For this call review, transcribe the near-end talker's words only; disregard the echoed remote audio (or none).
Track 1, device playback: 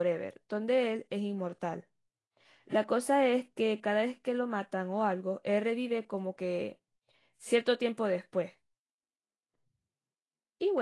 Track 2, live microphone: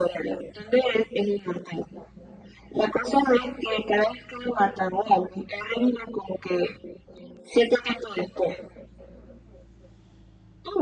none